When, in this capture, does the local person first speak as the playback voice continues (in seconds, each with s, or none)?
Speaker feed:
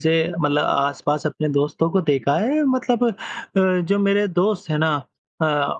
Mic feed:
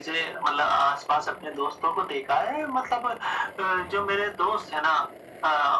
none